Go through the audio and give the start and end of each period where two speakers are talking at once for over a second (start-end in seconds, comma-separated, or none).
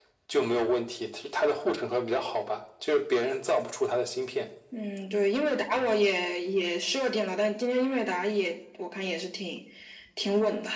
none